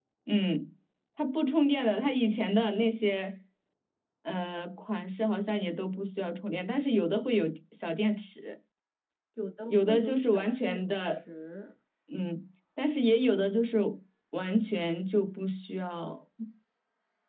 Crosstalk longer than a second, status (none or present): present